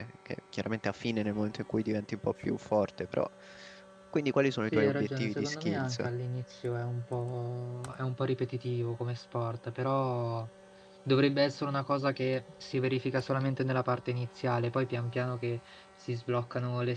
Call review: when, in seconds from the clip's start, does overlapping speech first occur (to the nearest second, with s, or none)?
5 s